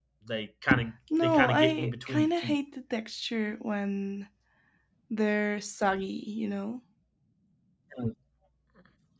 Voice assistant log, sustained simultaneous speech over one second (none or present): present